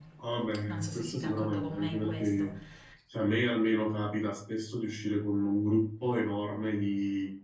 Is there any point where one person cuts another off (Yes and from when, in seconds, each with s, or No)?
Yes, from 0.6 s